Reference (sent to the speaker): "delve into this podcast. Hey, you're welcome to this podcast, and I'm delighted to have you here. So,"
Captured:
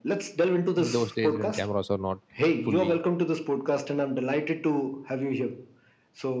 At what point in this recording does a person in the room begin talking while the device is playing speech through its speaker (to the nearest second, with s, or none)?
1 s